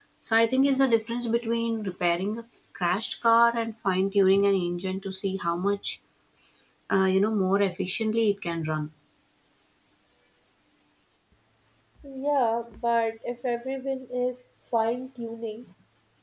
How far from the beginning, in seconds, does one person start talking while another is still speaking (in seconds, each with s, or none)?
none